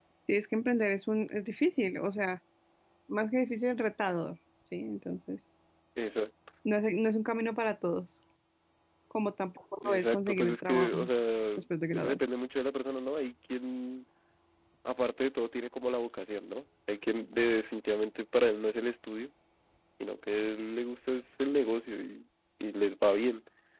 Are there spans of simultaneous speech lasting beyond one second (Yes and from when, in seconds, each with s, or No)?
Yes, from 9.8 s